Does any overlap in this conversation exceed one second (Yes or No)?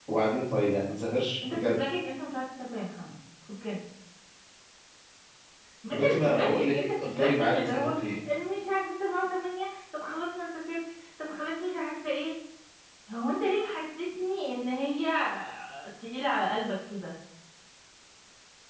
Yes